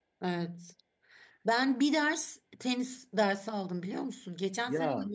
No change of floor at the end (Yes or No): Yes